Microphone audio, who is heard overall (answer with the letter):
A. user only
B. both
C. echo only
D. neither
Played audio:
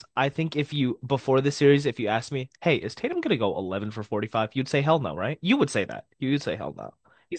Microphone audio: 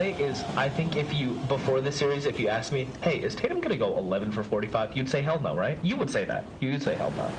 C